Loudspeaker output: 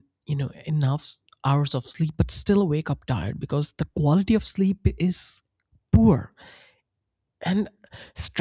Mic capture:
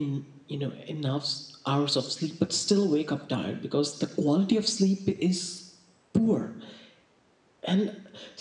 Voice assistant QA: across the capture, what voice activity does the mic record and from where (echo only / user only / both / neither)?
echo only